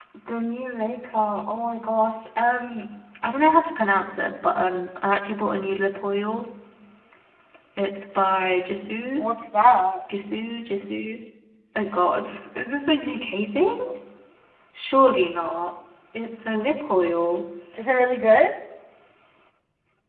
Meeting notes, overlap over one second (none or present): none